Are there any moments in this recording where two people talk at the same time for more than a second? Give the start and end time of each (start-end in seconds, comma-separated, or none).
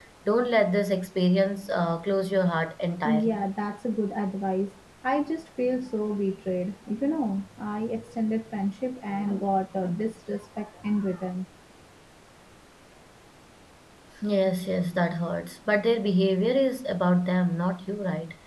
none